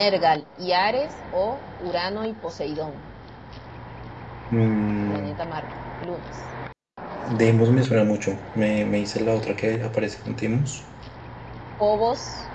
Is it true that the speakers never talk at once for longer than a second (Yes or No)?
Yes